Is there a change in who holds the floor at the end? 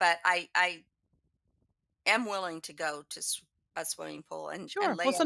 Yes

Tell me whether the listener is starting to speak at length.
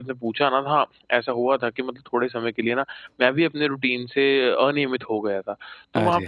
No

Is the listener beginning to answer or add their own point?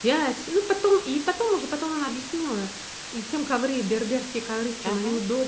No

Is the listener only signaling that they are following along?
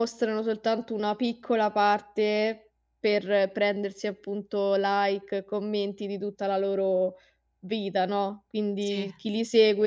Yes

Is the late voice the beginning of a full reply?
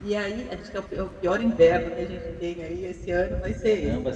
Yes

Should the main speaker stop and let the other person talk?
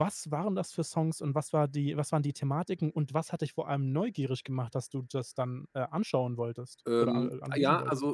Yes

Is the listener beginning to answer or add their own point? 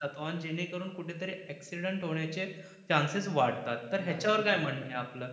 No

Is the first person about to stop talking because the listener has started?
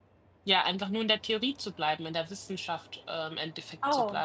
Yes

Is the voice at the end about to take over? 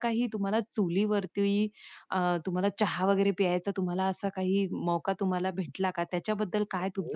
Yes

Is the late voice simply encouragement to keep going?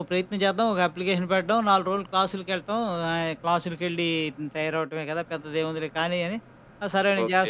No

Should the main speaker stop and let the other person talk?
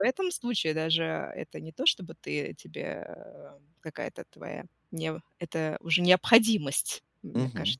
Yes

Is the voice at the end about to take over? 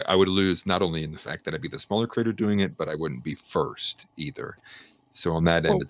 No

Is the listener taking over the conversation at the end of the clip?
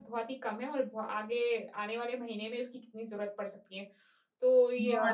No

